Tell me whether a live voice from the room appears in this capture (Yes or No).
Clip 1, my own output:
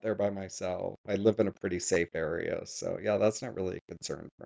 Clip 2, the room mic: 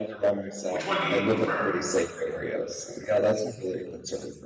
Yes